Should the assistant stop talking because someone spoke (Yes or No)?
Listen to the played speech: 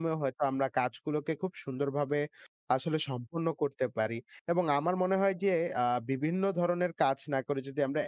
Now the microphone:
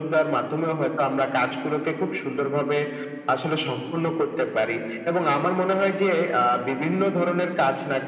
No